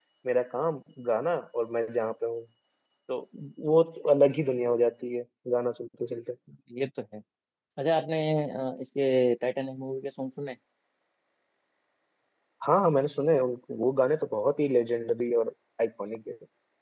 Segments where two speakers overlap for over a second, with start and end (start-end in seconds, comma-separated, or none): none